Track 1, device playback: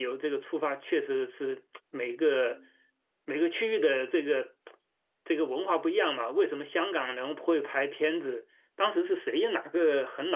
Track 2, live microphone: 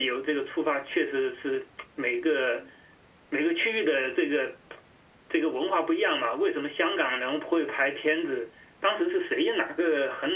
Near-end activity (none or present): none